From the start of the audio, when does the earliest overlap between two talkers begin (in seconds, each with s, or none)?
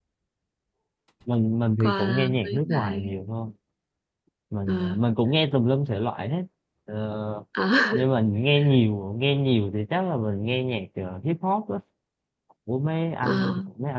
1.8 s